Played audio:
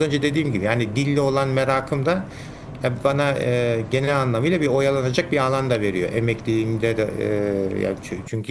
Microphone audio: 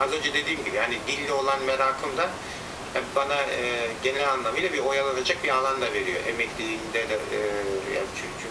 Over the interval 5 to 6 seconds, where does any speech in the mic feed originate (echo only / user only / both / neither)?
echo only